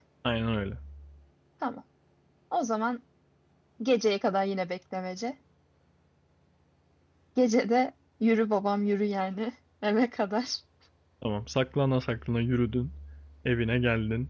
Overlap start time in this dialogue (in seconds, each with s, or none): none